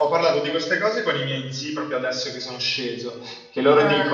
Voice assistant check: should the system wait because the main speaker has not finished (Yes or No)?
Yes